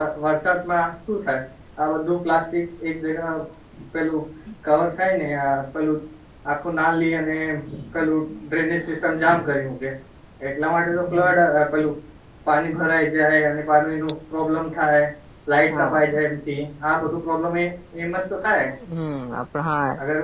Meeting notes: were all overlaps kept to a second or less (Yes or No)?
Yes